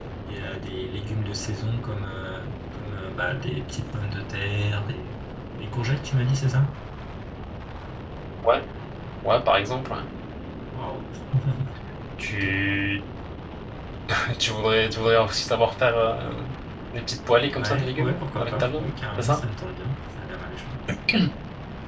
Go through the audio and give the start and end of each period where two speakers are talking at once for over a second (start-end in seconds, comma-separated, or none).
17.6-19.4